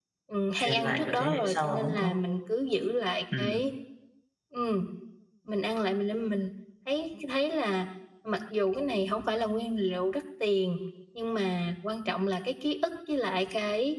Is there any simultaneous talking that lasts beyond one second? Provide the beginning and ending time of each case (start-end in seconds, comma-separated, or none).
0.6-2.1